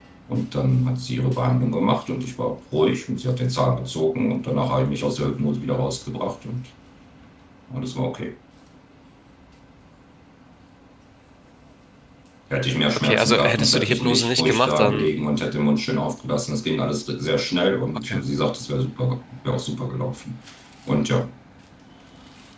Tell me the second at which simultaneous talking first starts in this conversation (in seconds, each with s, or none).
12.9 s